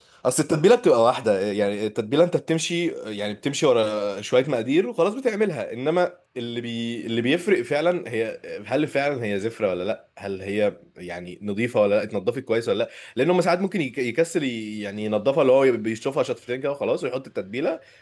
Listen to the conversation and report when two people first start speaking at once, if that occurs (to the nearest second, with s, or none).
none